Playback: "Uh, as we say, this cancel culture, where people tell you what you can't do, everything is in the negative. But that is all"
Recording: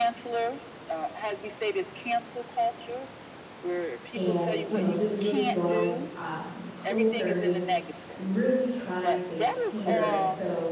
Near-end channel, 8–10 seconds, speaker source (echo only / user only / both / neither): both